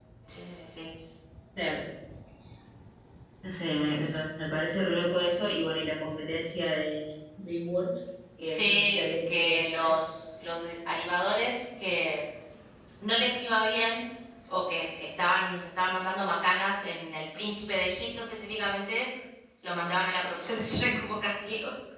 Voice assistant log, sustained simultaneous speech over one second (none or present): present